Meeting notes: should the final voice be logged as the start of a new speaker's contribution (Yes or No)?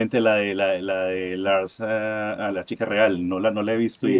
Yes